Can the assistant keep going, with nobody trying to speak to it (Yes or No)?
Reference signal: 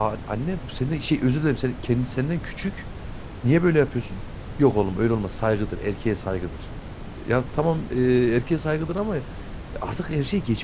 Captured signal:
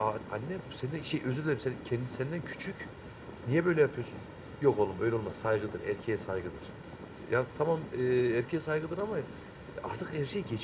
Yes